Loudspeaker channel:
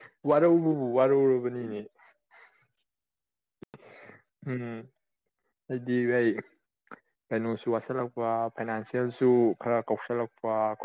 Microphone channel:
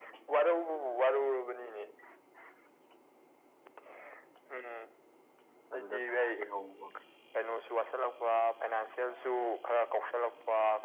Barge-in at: 5.7 s

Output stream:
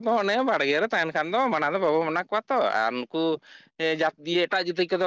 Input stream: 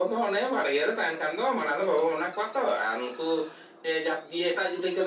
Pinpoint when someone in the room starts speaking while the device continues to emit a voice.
none

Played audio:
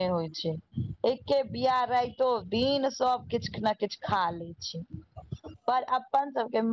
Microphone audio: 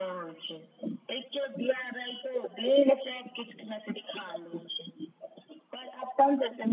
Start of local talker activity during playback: none

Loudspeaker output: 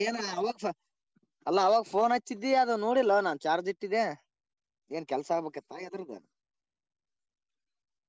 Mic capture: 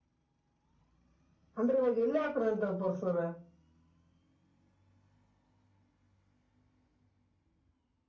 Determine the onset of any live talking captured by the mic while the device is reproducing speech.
1.6 s

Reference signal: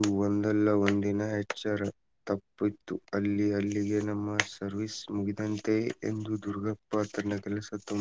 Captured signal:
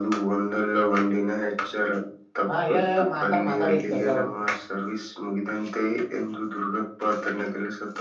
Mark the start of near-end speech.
2.5 s

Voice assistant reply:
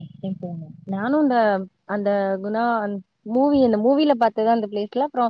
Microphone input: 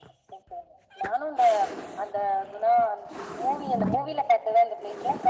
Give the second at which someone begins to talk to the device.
none

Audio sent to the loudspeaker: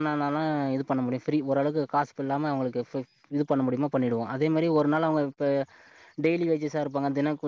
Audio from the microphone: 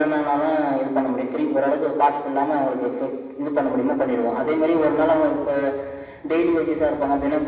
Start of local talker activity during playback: none

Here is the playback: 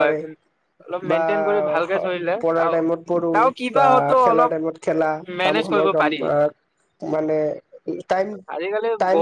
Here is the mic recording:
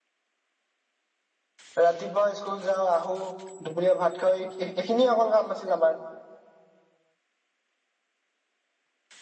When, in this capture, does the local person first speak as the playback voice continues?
1.8 s

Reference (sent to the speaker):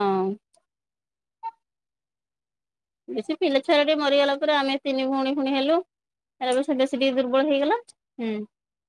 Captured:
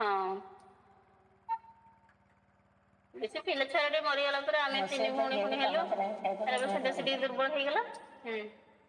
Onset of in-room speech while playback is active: 4.8 s

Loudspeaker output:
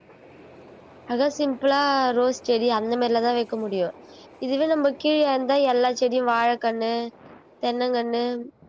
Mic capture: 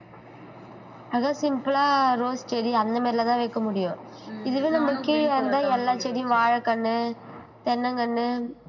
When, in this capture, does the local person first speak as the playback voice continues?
4.3 s

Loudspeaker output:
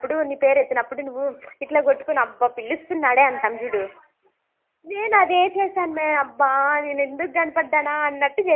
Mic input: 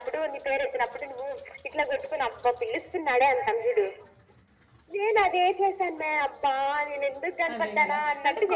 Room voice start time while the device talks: 7.5 s

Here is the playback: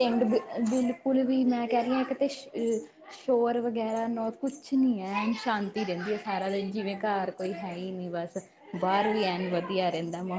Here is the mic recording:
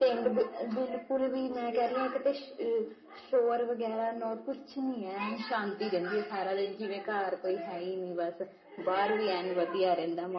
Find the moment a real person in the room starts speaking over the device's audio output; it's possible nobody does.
none

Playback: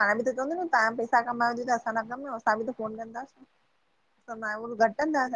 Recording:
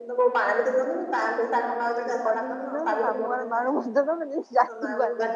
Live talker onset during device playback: 1.7 s

